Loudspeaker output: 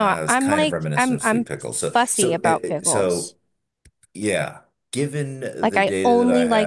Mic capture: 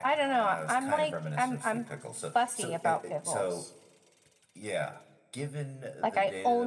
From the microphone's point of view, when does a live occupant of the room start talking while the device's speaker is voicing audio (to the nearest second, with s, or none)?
none